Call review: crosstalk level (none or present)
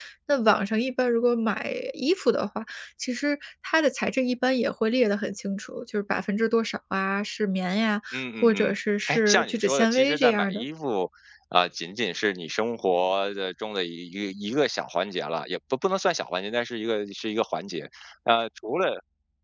present